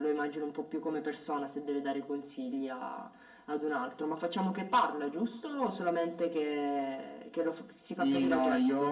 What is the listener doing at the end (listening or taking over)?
taking over